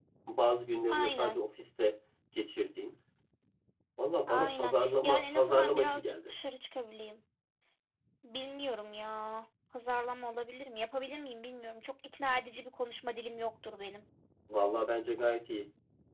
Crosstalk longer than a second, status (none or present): present